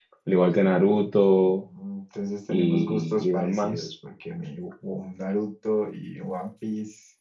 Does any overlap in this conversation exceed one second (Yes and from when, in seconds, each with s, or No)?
Yes, from 2.5 s